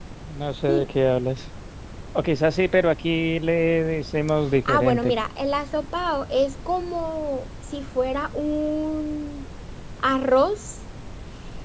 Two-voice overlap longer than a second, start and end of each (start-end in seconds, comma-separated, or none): none